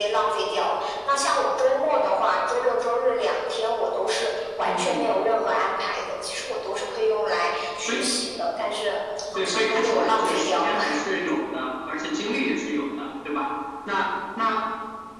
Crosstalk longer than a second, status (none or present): present